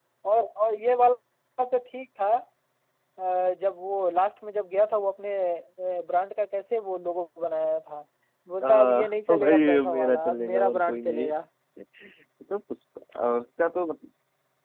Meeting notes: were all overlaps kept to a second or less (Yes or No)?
No